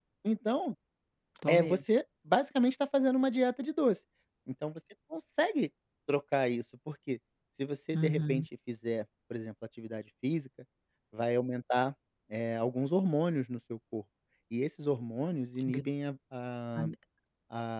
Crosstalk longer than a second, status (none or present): none